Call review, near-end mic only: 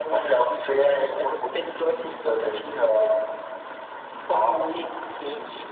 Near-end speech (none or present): none